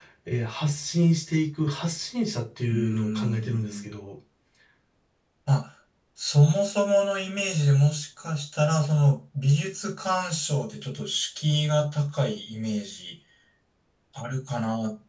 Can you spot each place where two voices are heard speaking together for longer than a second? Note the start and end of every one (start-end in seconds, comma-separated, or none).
2.7-3.9